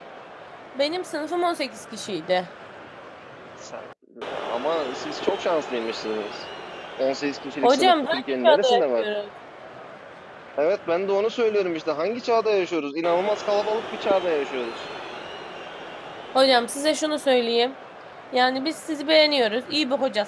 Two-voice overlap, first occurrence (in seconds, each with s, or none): 7.6 s